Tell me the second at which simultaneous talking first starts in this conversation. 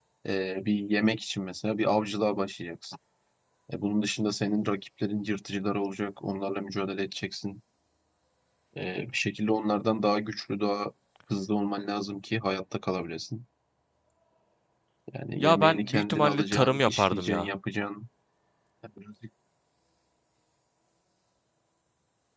15 s

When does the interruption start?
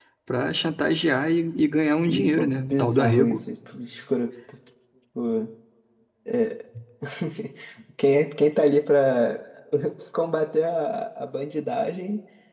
2 s

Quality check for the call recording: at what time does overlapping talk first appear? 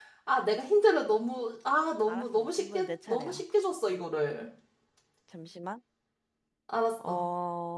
2 s

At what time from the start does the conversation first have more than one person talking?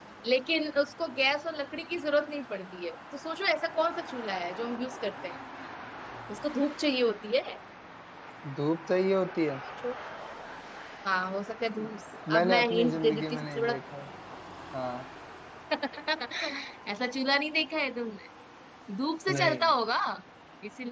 12 s

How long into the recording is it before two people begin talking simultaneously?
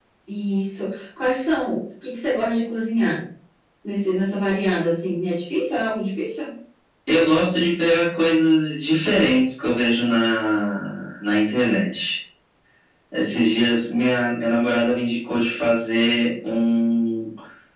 none

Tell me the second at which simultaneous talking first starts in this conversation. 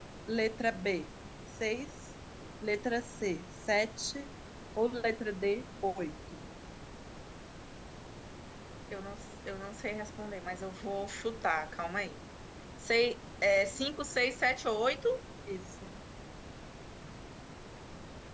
none

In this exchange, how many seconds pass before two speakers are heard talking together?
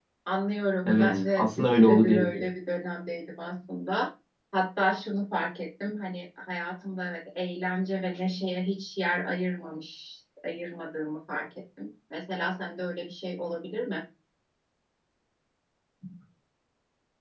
1 s

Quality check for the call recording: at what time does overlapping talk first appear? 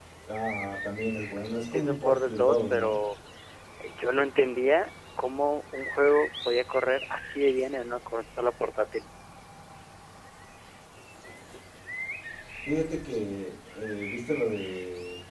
2 s

